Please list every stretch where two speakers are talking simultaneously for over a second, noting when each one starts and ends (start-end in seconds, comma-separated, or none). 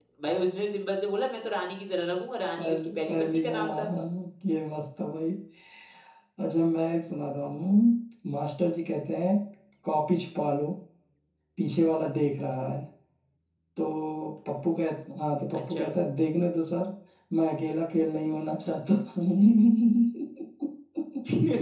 2.6-3.9